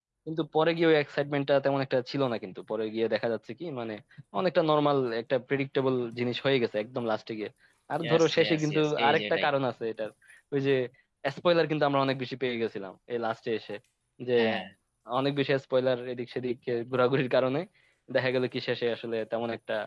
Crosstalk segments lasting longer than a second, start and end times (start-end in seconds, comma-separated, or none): 8.0-9.5